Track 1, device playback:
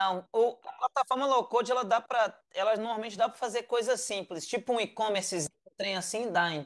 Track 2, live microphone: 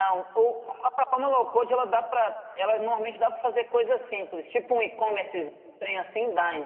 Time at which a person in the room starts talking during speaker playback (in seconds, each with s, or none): none